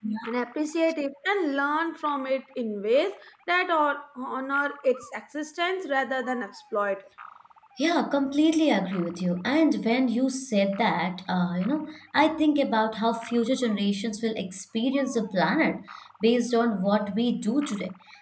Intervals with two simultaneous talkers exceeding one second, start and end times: none

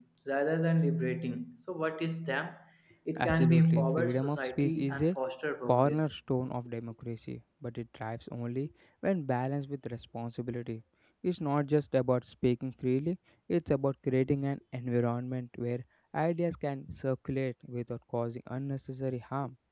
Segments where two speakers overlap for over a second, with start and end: 3.2-5.1

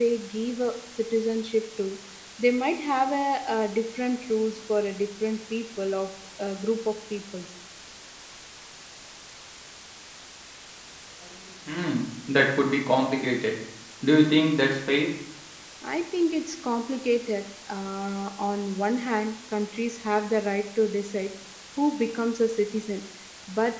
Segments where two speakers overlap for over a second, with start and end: none

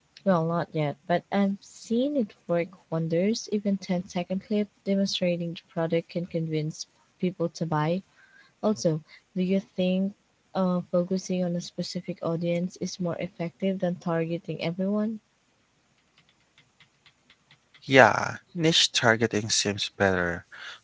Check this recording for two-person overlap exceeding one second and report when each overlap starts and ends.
none

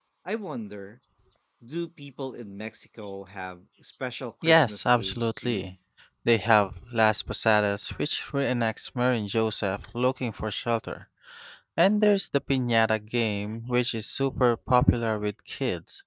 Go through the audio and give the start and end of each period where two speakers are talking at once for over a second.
4.4-5.7

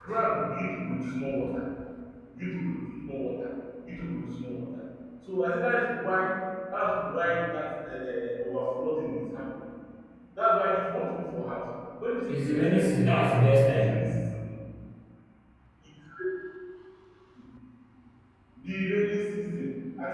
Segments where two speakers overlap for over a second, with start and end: 12.3-13.9

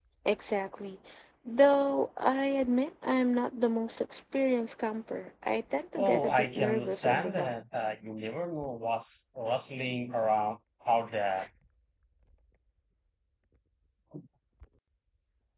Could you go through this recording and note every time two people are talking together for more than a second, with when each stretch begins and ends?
6.0-7.5

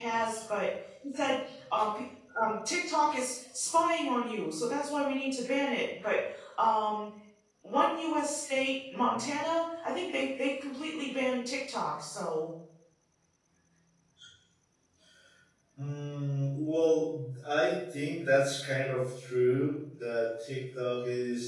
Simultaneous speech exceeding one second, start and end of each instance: none

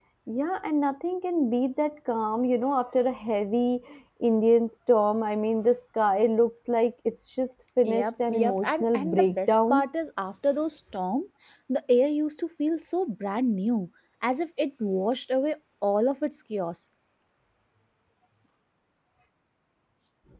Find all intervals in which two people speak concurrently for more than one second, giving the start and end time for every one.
7.8-9.9

